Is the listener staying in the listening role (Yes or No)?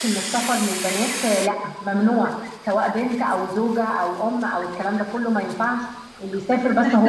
No